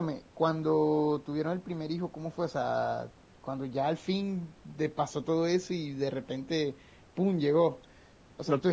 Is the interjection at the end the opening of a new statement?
No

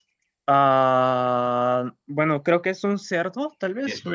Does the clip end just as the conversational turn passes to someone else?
Yes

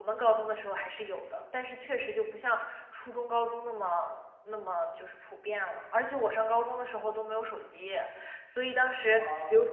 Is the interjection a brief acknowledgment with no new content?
Yes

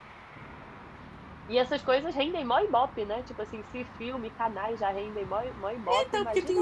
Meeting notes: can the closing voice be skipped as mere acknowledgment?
No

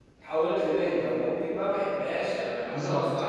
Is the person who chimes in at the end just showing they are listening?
No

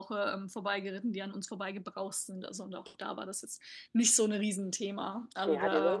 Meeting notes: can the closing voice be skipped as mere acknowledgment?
No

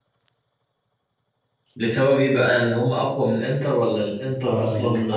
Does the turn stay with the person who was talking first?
No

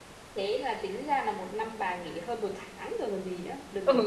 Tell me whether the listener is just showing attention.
No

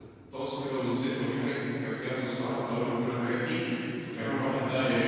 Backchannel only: Yes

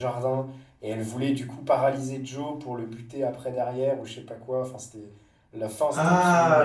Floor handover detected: Yes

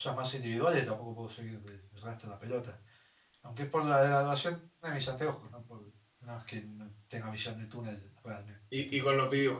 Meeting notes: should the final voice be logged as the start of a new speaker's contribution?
Yes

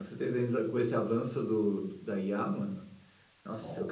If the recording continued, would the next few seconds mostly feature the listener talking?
No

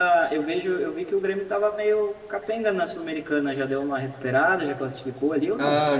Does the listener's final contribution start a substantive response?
Yes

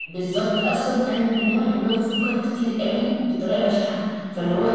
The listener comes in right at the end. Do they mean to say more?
No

